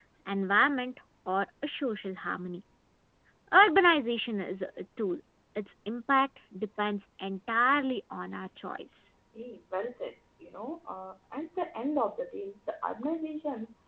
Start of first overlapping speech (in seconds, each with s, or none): none